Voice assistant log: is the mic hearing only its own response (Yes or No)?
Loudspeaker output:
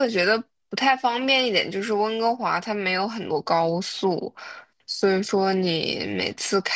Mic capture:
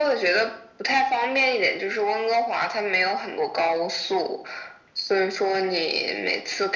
Yes